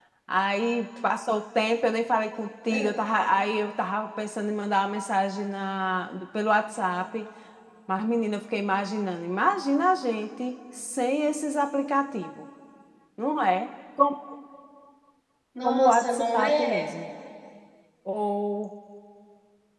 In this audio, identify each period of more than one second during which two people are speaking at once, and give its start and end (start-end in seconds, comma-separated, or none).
15.6-16.8